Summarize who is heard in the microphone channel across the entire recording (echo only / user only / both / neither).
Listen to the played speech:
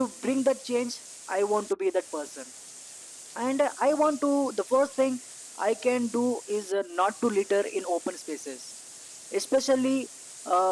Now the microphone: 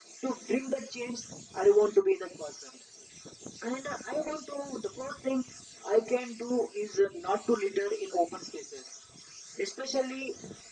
echo only